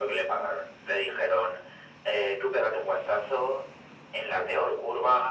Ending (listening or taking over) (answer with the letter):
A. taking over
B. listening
B